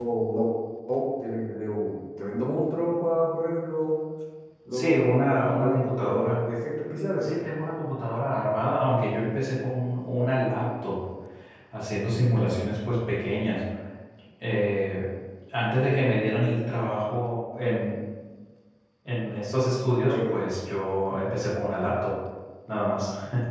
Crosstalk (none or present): present